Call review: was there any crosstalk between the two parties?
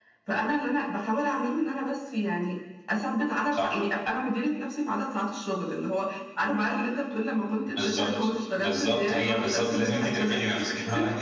Yes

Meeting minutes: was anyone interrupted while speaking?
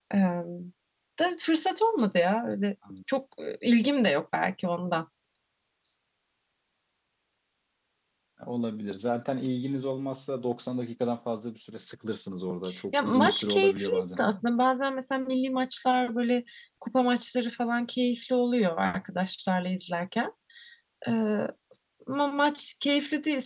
Yes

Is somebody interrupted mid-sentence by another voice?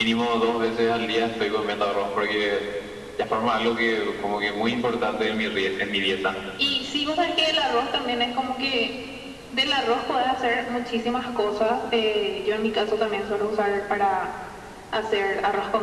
No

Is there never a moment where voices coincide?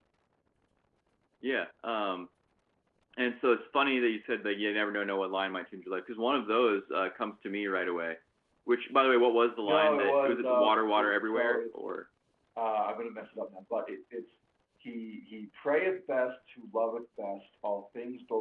No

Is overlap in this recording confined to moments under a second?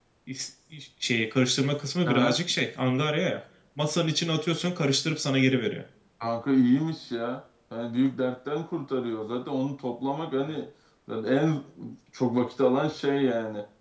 Yes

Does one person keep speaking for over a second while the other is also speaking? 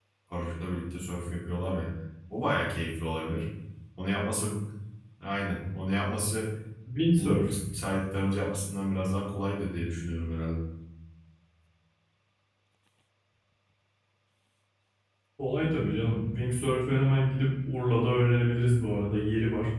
No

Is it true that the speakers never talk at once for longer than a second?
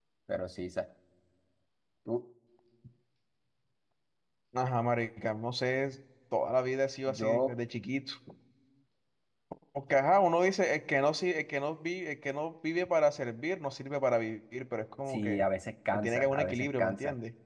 No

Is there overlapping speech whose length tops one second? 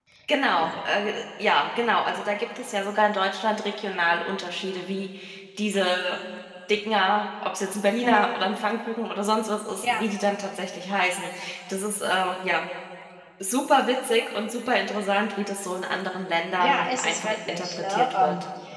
Yes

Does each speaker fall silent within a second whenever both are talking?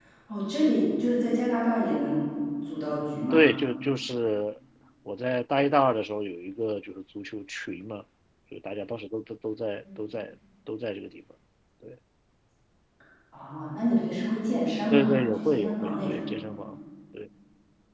No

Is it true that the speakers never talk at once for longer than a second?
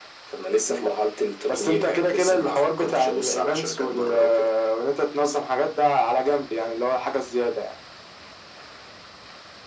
No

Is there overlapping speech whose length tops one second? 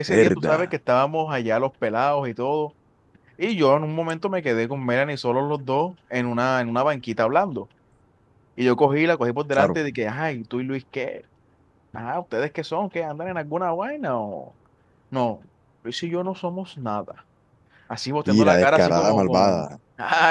Yes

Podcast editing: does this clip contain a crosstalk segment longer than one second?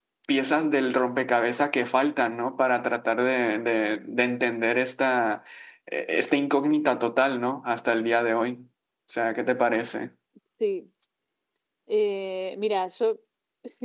No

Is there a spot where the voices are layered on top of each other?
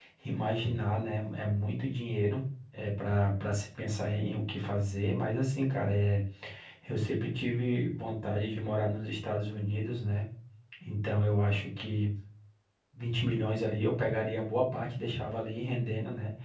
No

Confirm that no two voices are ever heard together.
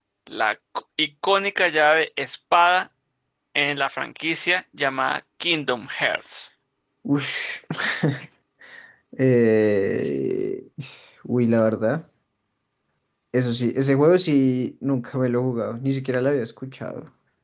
Yes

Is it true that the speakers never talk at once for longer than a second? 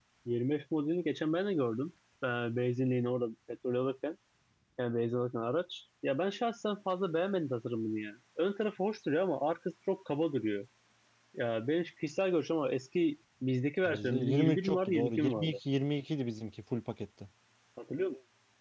No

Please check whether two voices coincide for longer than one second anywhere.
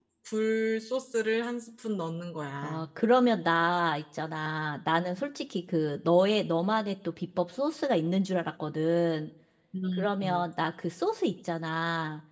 No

